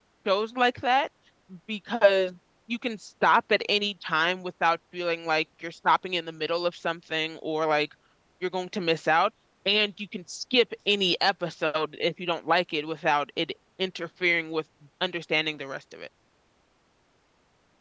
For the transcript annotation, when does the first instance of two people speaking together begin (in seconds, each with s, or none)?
none